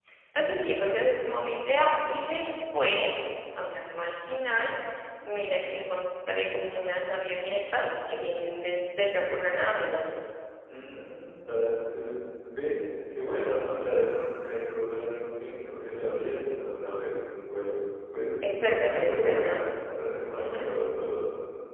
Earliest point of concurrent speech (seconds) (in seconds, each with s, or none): 18.4 s